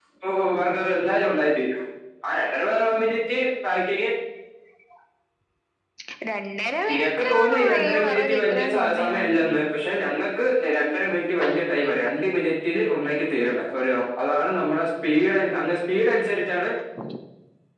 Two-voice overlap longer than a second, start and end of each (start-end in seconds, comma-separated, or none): 6.9-9.5